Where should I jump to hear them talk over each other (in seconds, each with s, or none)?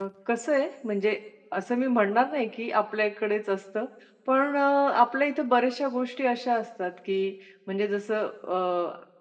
none